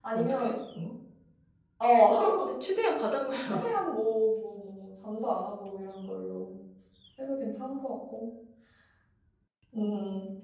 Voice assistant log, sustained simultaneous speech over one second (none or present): none